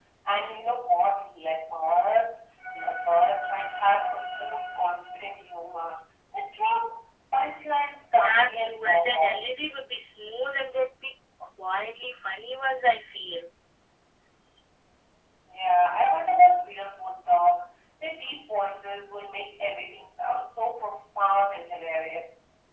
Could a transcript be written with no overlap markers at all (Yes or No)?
No